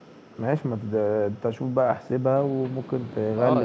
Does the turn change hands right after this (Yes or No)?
Yes